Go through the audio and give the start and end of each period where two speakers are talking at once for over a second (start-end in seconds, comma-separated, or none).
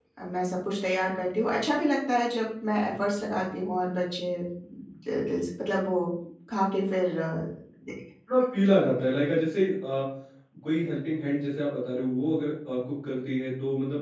none